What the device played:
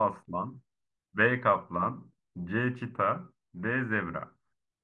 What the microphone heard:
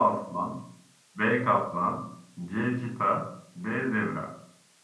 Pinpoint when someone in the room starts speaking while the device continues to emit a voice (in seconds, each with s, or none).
none